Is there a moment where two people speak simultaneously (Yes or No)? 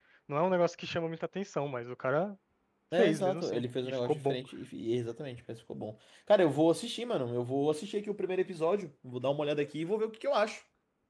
Yes